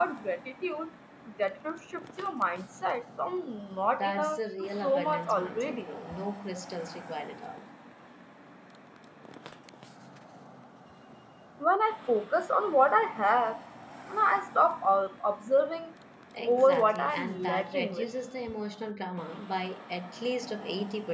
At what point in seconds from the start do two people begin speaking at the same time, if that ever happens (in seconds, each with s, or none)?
4.0 s